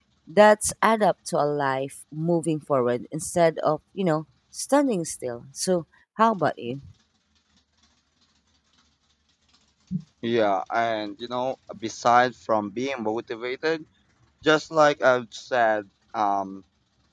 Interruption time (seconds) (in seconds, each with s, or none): none